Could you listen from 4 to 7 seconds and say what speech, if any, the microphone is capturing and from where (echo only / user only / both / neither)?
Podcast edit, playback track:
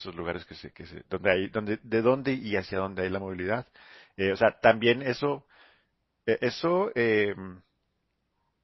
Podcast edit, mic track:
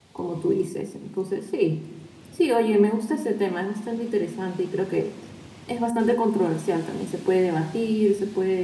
user only